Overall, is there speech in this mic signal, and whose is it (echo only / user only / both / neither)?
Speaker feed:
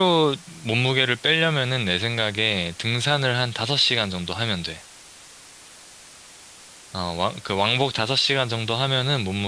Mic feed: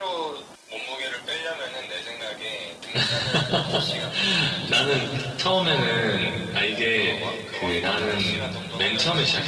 both